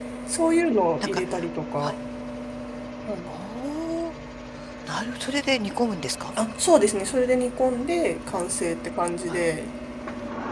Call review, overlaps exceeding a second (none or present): none